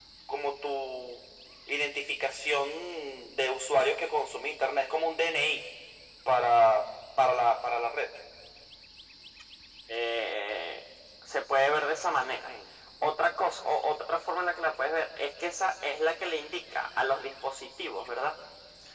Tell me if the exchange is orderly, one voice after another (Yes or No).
Yes